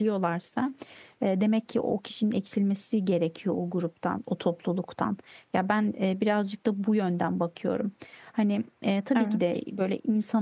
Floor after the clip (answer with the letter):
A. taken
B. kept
B